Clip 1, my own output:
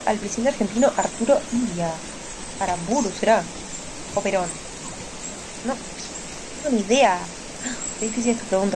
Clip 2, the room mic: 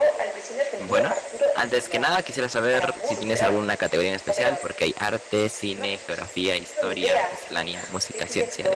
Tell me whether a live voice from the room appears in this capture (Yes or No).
Yes